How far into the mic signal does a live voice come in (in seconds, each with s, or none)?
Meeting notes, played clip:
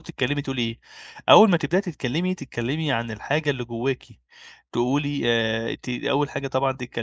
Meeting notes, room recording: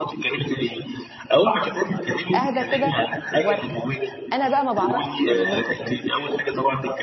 2.4 s